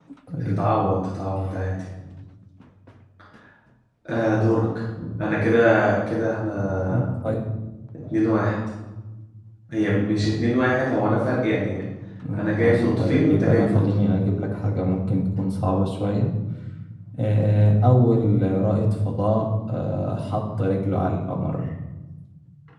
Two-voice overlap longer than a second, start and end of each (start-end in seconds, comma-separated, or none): 12.3-13.8